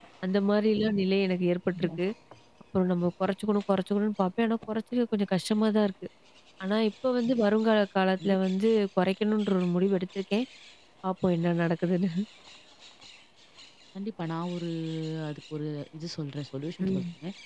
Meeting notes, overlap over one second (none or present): none